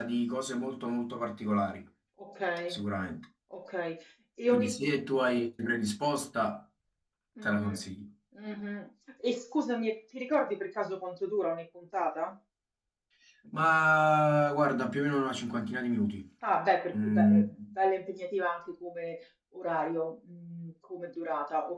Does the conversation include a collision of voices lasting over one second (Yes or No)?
No